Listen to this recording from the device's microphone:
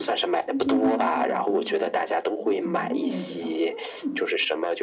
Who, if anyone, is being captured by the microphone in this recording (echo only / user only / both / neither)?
both